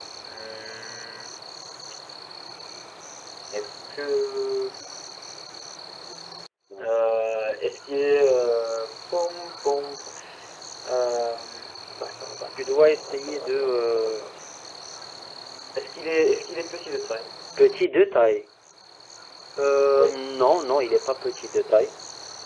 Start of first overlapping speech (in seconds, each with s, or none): 12.6 s